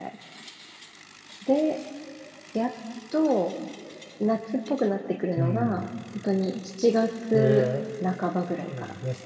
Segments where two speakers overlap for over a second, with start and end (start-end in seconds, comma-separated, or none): none